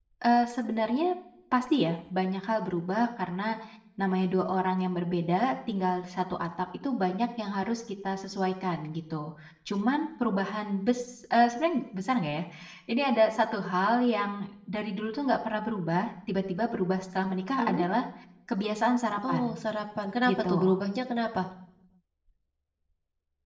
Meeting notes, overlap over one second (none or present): none